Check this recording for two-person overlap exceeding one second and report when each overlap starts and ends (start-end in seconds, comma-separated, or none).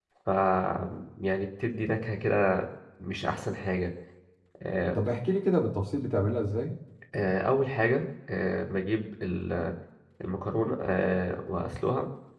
none